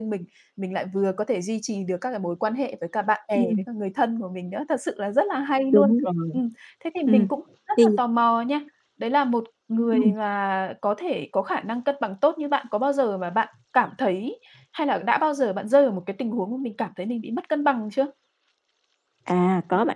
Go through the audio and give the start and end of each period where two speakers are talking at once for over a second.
none

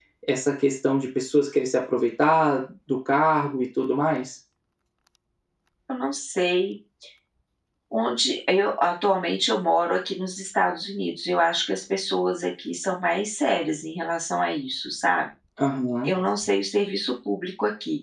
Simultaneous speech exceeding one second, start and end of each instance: none

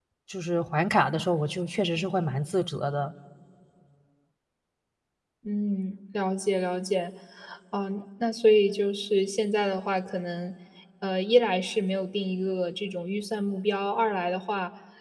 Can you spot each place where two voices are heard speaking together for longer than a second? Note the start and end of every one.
none

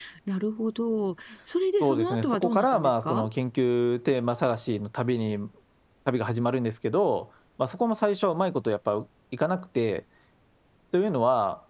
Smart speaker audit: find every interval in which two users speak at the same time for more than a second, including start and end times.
1.8-3.3

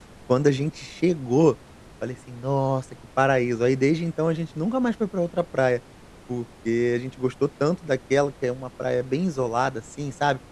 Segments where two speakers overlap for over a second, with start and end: none

